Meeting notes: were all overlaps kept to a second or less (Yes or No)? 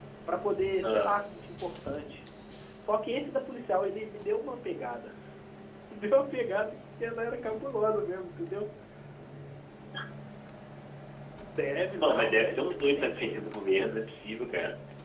No